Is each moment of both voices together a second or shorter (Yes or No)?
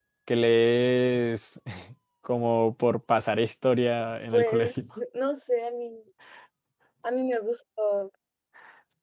Yes